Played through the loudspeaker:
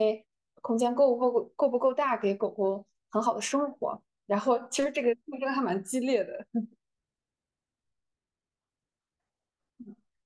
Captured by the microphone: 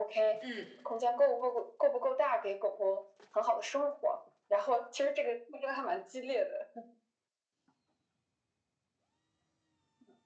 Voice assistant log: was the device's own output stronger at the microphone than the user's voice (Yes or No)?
Yes